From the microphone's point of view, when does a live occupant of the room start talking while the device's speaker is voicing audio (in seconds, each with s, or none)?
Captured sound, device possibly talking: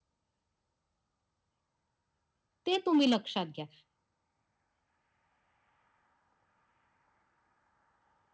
2.7 s